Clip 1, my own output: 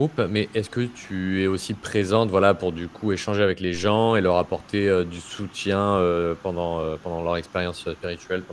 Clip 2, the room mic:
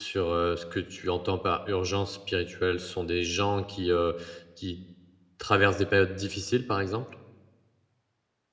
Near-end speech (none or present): present